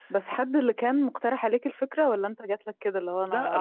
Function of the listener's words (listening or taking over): taking over